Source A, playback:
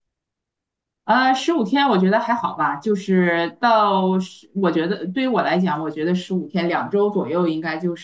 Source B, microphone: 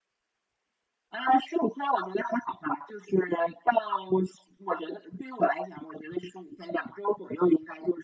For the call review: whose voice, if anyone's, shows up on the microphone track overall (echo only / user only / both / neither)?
echo only